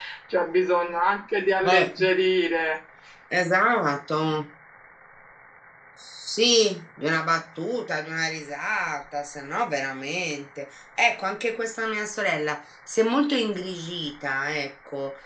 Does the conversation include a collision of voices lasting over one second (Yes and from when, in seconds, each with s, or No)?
No